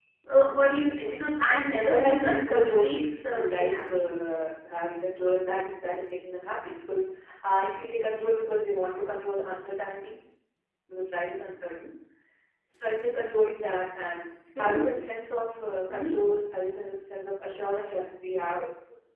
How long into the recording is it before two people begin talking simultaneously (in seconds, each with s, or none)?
1.9 s